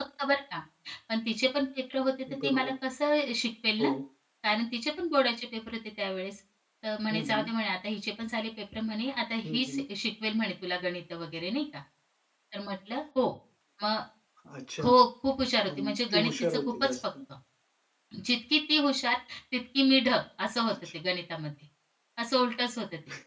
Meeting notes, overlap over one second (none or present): present